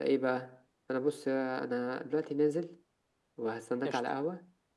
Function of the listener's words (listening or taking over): listening